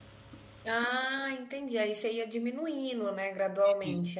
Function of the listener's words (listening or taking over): taking over